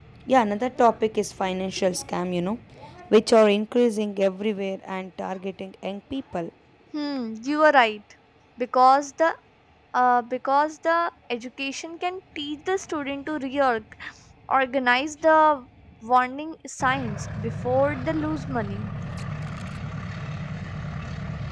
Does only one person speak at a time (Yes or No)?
Yes